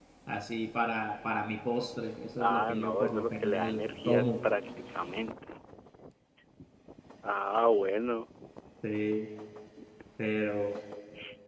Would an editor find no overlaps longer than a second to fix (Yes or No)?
No